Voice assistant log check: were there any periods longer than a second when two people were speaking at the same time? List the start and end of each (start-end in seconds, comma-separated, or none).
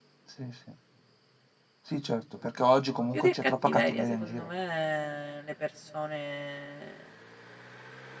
3.1-4.5